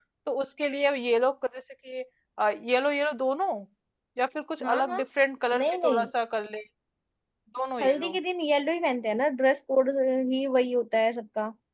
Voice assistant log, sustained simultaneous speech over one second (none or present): none